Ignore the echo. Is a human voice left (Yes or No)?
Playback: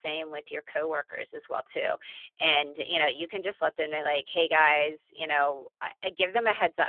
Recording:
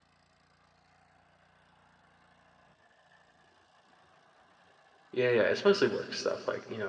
Yes